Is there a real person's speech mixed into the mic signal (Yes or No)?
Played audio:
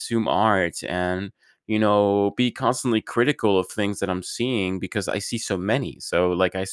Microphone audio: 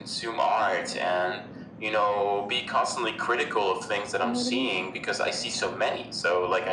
Yes